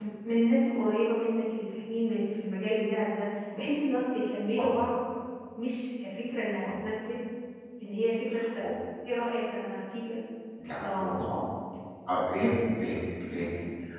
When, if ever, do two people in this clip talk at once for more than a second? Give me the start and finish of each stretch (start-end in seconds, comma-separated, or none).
none